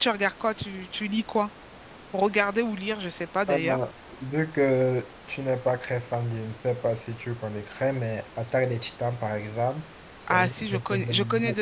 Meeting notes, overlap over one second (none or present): present